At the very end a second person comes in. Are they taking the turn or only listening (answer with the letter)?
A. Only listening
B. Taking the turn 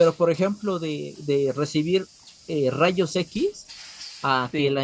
A